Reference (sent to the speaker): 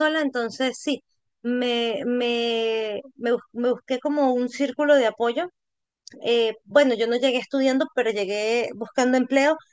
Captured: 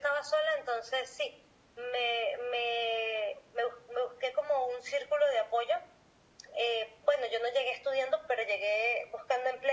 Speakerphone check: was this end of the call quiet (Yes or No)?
Yes